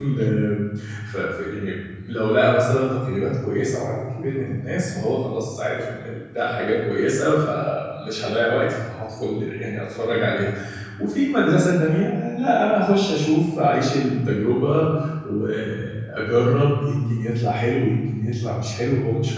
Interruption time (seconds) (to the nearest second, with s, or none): none